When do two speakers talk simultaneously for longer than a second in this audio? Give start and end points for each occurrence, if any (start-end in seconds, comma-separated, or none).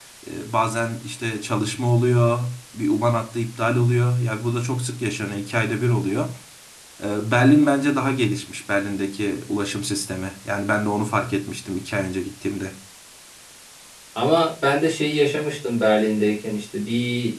none